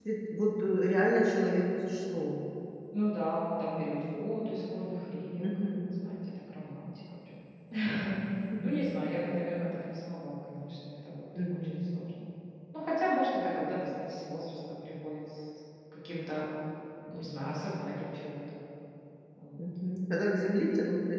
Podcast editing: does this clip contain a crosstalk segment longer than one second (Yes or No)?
No